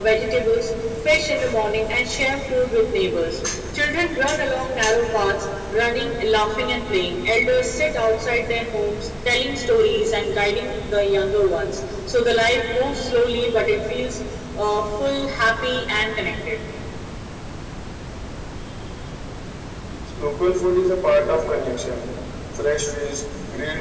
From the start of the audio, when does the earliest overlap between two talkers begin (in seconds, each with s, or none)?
none